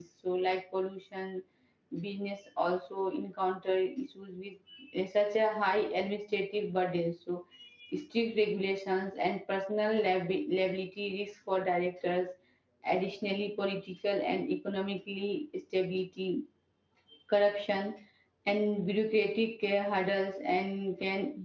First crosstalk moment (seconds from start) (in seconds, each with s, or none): none